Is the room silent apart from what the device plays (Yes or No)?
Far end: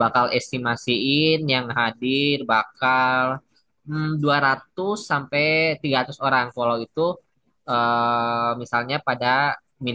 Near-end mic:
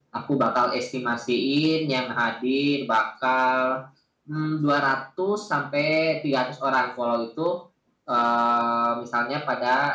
Yes